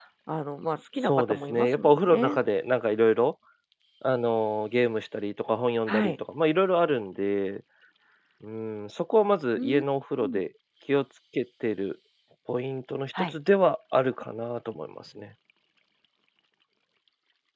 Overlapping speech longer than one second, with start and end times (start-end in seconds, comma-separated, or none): 1.0-2.4